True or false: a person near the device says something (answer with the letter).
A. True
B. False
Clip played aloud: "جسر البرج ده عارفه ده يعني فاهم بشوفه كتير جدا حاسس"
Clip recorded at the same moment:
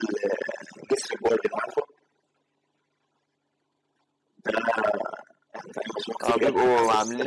A